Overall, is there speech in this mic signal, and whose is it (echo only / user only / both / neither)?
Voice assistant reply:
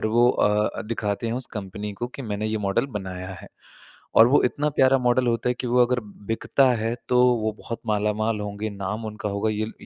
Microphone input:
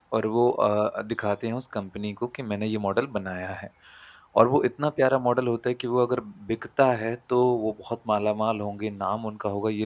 echo only